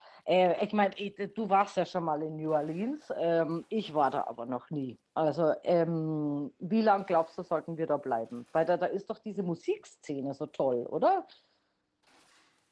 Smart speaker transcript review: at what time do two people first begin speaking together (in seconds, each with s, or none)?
none